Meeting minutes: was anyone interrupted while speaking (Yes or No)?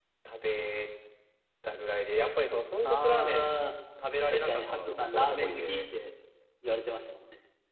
Yes